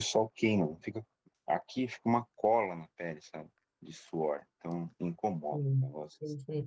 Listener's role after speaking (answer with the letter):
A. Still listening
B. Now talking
B